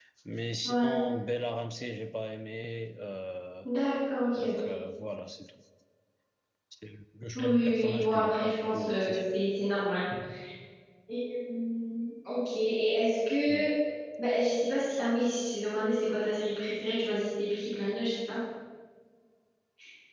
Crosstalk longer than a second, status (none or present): present